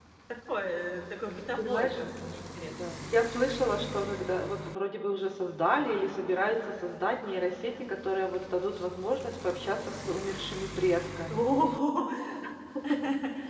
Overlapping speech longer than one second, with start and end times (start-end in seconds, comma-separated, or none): none